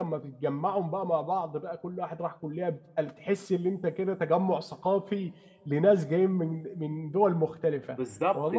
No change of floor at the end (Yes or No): No